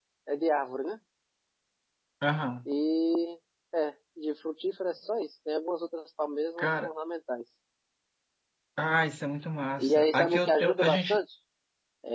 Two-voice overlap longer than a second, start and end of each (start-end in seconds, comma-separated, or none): 9.8-11.2